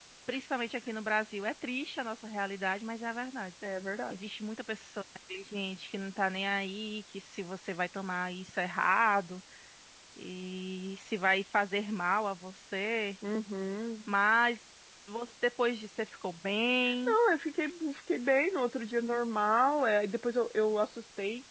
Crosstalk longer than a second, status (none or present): none